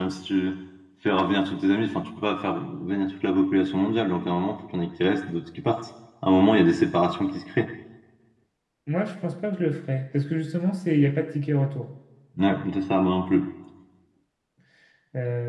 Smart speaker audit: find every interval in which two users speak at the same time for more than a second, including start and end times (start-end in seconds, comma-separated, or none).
none